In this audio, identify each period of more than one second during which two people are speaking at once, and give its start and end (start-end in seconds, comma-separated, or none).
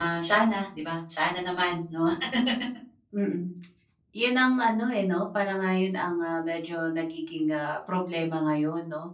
none